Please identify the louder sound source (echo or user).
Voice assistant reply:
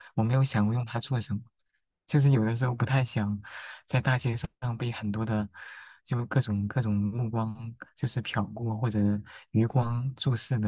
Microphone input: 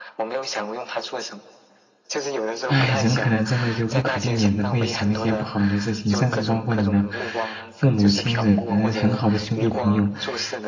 user